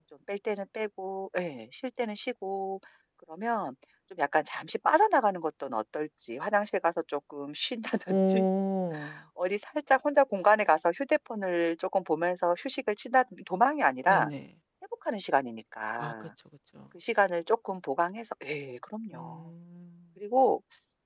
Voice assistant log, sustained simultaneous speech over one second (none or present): none